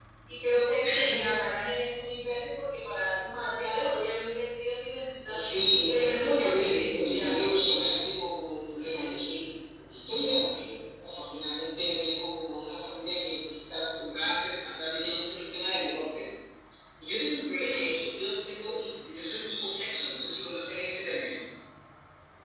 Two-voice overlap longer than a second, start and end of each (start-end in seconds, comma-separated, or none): 5.9-7.6